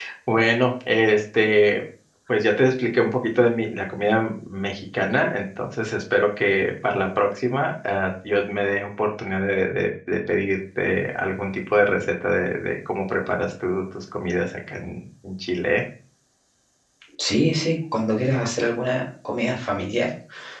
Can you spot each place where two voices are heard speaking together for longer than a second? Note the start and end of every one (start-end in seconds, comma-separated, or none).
none